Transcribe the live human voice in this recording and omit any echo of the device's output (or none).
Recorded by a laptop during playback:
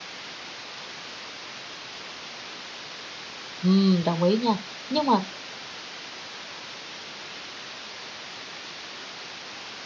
Ừm, đồng ý nha. Nhưng mà